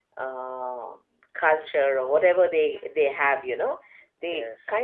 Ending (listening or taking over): listening